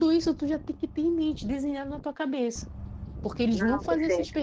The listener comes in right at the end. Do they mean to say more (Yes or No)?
No